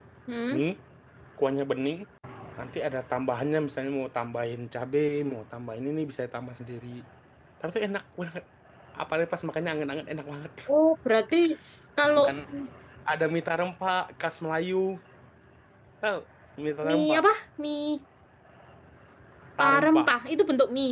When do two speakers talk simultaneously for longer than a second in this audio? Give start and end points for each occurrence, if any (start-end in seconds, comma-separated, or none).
none